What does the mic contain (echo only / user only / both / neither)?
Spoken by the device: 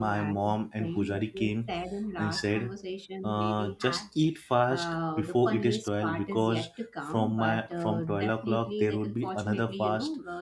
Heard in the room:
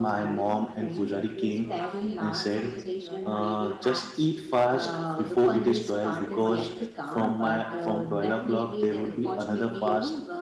both